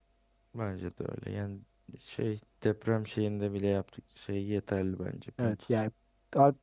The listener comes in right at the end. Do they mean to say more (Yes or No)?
Yes